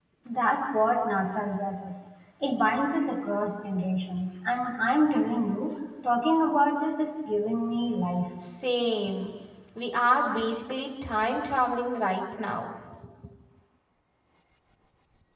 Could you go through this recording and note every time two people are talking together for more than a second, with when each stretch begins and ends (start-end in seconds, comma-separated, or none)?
none